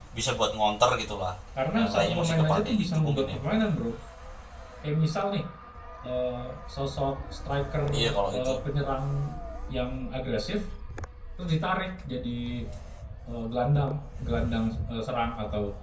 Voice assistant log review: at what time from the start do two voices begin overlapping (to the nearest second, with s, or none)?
2 s